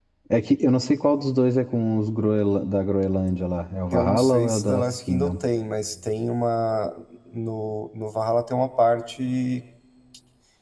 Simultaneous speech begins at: 4 s

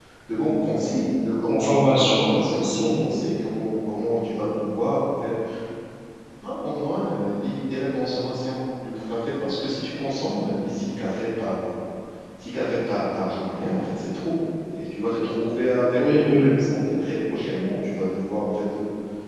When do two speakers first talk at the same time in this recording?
1 s

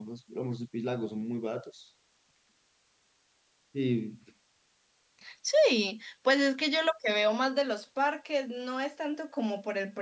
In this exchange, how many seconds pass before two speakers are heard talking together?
none

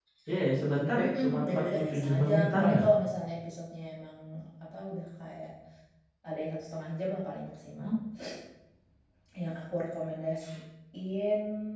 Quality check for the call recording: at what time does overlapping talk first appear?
1 s

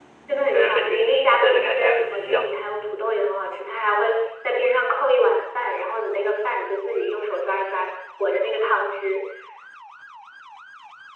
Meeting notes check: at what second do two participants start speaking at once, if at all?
1 s

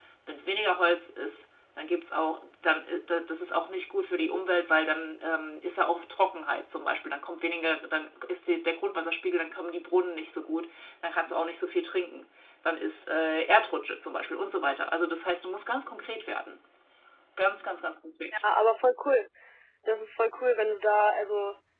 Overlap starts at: none

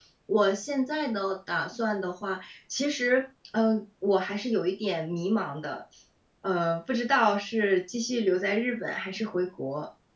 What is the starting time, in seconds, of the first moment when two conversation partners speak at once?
none

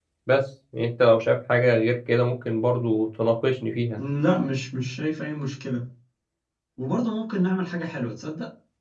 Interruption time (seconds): none

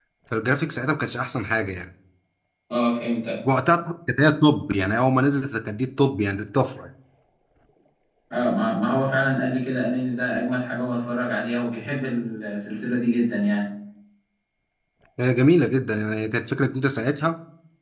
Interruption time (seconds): none

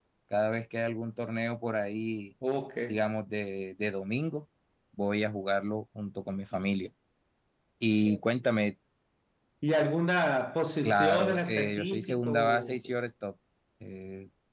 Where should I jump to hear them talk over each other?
11 s

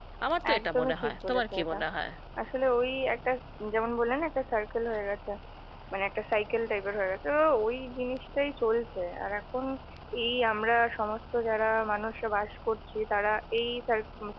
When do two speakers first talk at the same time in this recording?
1 s

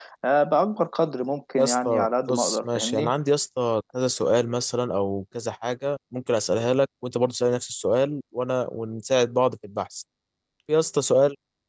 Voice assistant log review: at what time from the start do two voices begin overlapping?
2 s

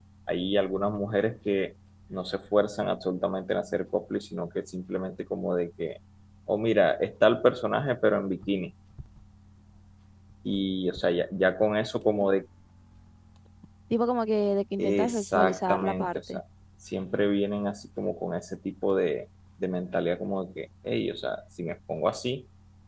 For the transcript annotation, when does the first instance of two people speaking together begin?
15 s

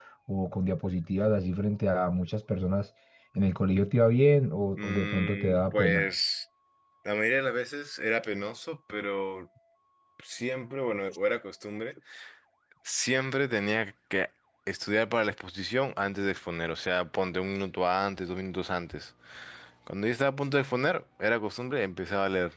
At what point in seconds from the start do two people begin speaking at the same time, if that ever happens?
5 s

